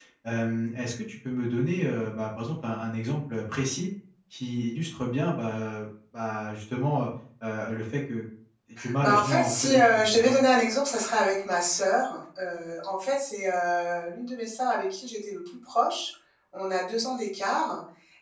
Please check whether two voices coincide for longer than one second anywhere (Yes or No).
Yes